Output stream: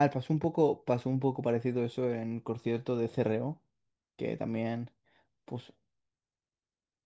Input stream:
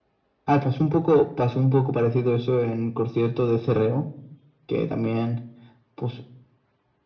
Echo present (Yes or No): Yes